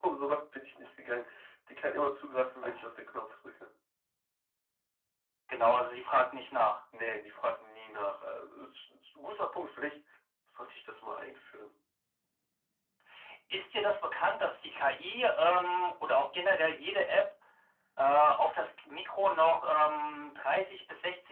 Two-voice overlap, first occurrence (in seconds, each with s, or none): none